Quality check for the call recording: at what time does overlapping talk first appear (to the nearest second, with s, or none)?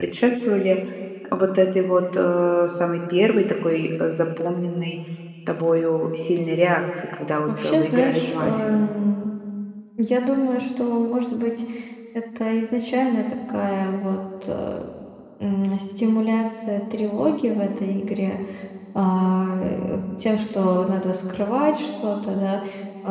7 s